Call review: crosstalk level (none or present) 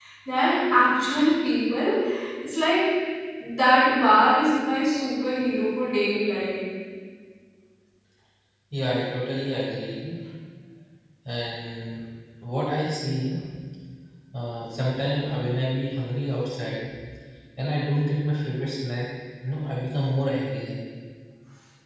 none